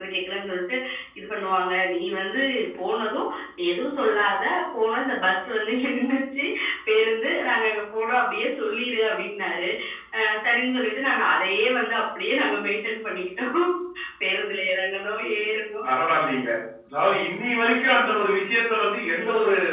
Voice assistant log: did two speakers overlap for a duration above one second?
No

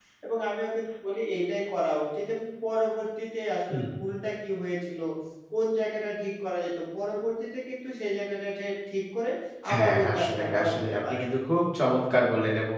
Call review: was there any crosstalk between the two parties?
Yes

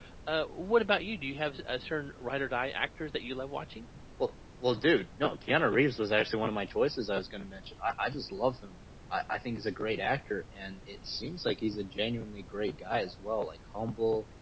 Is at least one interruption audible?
No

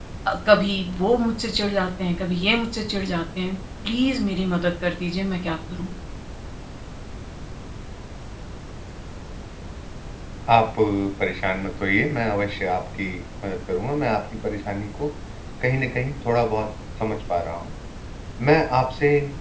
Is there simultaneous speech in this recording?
No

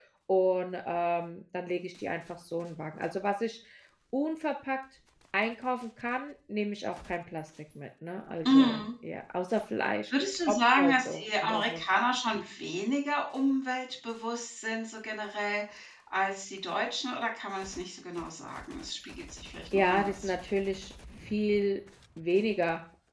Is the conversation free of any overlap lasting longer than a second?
No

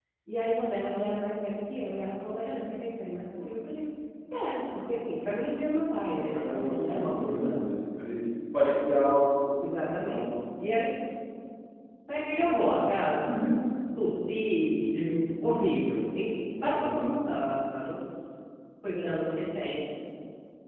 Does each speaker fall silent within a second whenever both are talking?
No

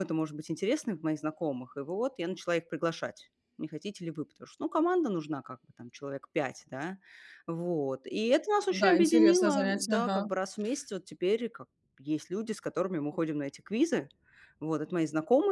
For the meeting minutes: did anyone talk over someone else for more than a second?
Yes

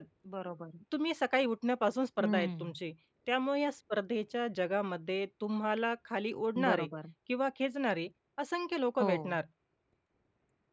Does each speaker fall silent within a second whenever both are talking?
Yes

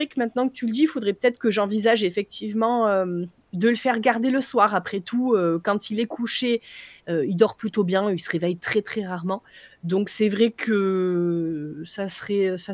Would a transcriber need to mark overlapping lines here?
No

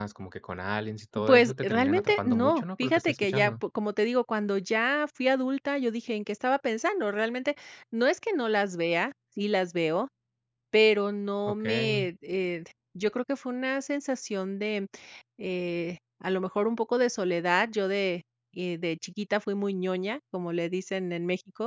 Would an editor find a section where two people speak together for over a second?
Yes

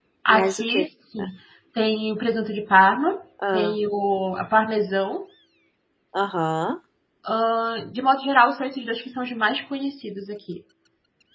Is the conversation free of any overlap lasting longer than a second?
Yes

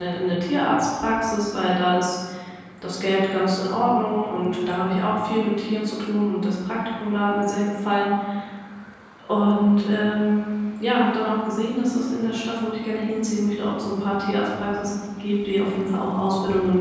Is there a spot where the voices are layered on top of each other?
No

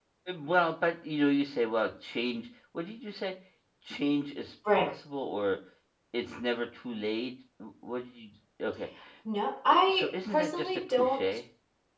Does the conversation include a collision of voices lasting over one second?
Yes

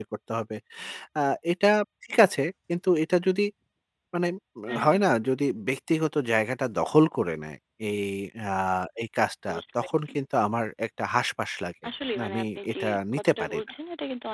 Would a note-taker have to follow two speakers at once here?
Yes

